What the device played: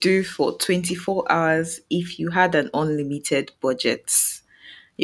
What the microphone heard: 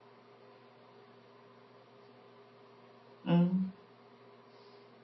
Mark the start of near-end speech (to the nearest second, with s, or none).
3 s